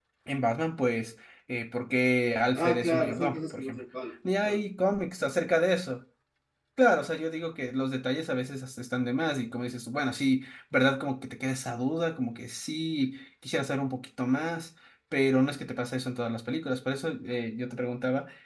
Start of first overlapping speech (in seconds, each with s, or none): 2.5 s